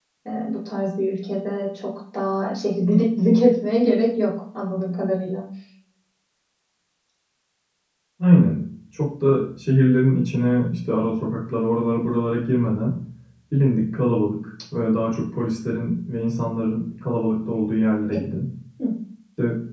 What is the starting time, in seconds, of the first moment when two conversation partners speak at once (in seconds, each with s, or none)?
none